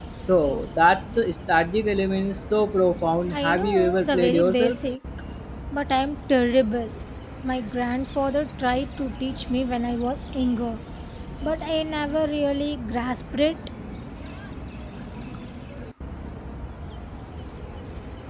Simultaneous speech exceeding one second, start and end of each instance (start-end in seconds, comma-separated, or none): 3.3-4.7